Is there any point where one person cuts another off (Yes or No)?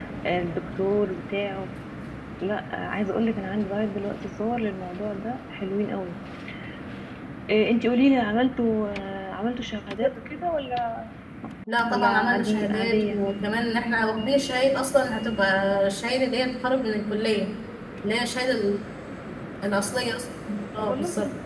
Yes